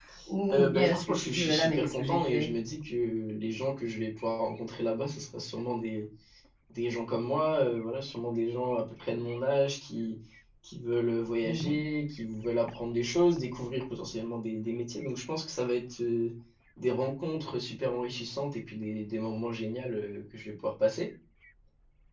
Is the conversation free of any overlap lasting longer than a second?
No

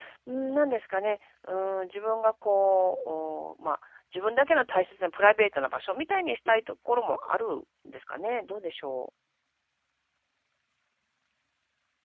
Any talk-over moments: No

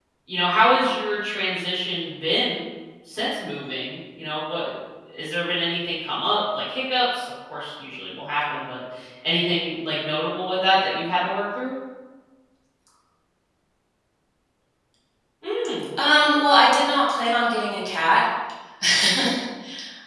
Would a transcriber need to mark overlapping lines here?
No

